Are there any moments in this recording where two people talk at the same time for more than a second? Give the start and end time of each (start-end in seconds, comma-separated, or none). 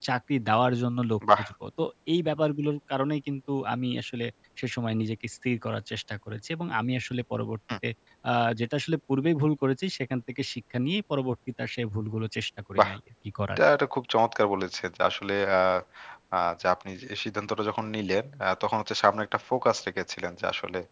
none